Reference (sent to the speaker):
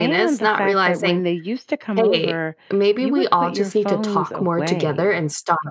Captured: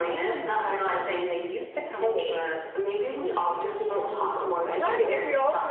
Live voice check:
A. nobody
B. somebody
B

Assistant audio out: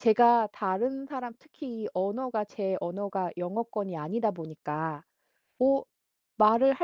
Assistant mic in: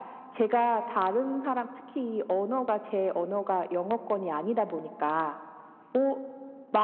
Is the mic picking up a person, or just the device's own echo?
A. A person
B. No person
B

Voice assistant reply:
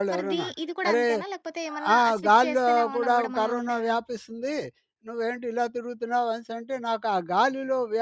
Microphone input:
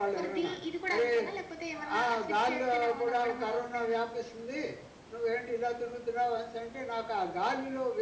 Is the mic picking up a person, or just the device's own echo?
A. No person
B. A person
A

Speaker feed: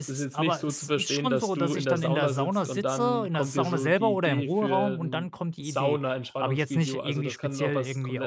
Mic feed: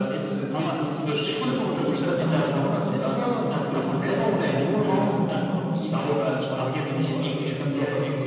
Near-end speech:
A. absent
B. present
A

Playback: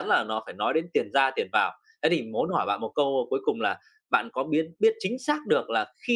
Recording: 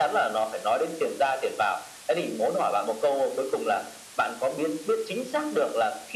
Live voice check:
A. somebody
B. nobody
B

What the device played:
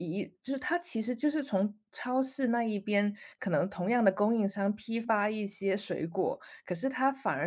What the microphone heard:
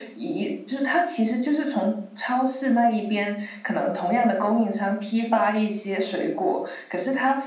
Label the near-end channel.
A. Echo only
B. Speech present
A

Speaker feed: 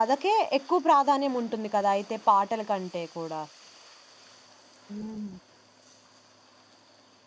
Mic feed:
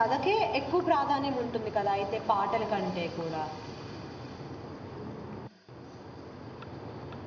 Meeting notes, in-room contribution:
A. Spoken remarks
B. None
B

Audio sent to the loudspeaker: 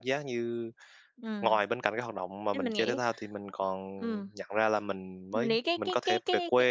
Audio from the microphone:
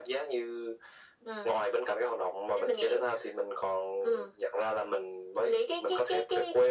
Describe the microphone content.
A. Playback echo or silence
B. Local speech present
A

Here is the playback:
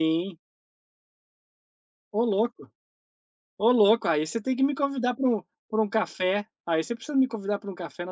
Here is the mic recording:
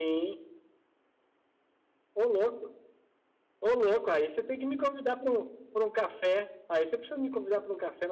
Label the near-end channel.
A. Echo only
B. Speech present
A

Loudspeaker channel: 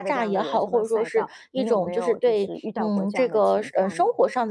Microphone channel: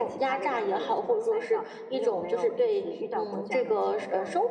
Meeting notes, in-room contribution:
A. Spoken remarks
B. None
B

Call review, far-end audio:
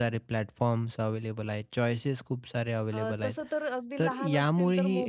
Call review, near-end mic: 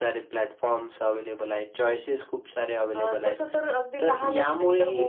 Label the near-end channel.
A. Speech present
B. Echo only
B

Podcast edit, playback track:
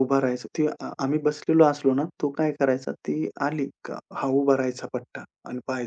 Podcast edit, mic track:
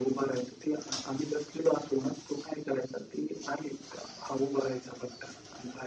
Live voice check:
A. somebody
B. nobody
B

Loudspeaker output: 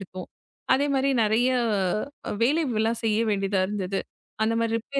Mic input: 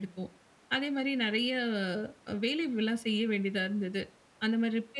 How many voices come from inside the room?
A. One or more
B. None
B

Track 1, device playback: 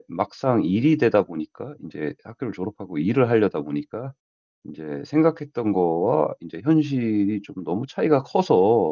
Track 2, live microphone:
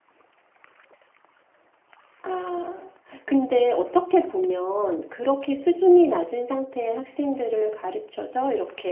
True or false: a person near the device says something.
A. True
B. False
A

